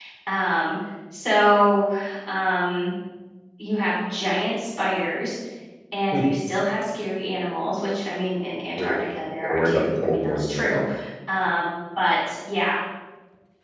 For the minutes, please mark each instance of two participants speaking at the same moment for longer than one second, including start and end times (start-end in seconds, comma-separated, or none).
9.4-10.8